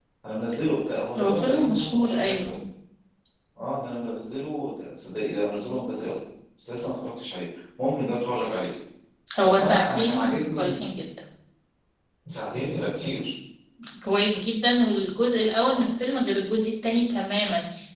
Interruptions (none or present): present